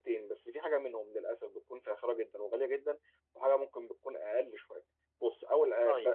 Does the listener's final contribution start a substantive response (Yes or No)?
No